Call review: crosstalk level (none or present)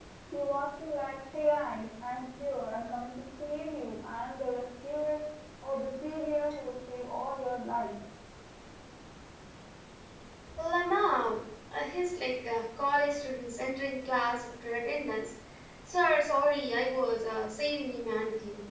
none